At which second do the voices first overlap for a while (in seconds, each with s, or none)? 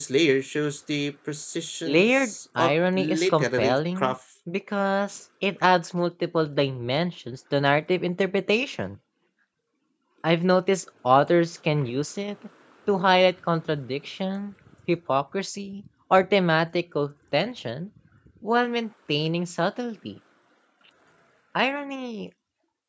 1.9 s